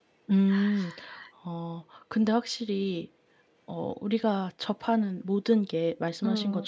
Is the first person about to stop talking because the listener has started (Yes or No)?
No